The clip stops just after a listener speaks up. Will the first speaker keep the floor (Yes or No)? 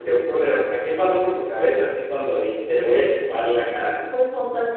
No